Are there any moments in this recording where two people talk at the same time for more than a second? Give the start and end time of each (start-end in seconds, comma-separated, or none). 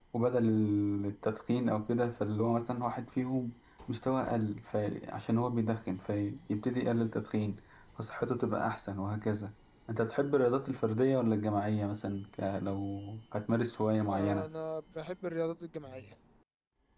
none